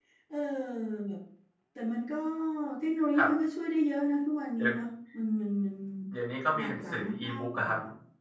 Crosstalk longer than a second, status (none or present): present